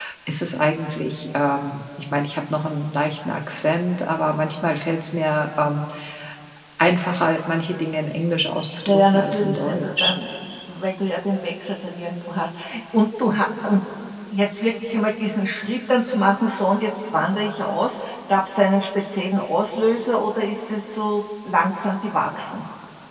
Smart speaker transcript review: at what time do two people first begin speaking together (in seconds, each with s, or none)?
8.9 s